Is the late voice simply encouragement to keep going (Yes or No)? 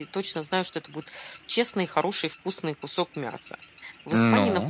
Yes